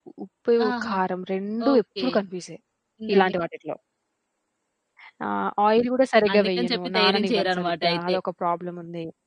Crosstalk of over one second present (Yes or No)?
Yes